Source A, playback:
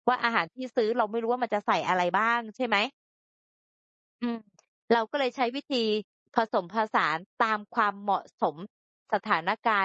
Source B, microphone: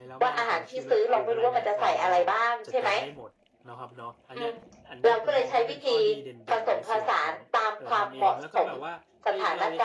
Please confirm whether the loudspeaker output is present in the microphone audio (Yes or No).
Yes